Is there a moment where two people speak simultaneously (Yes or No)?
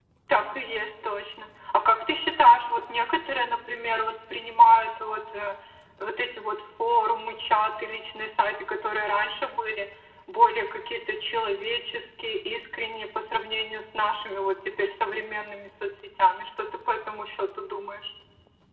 No